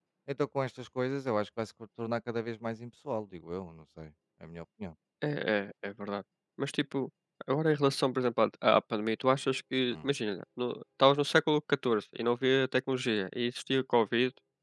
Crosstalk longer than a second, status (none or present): none